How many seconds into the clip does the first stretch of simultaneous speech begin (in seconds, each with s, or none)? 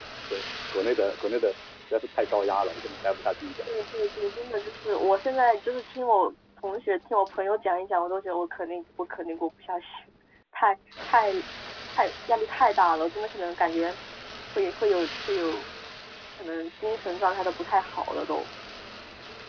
none